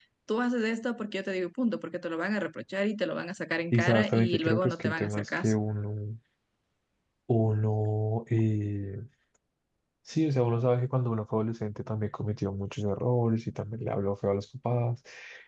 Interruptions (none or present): present